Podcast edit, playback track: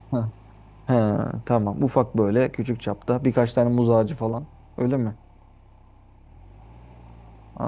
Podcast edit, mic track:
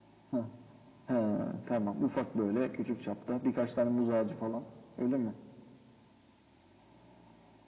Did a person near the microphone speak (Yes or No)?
No